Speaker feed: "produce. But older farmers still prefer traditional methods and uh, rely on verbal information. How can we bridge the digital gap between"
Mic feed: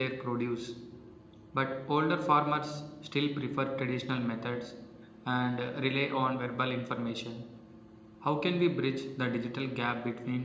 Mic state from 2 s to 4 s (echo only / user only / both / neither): echo only